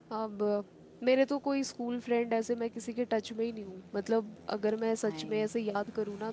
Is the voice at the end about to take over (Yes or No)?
No